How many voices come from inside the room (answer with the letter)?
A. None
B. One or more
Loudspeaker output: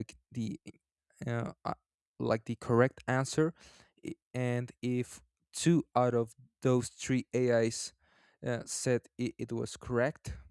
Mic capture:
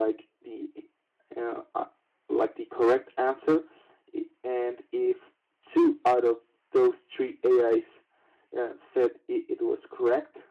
A